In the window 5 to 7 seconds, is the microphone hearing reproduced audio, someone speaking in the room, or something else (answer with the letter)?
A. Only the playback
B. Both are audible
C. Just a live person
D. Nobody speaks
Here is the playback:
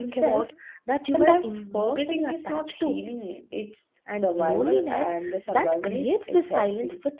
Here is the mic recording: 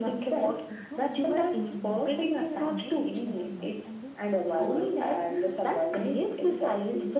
B